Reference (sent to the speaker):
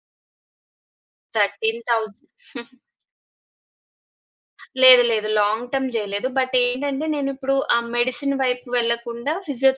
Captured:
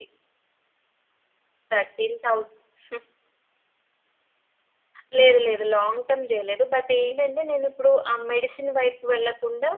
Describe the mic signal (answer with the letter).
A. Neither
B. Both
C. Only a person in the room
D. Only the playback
D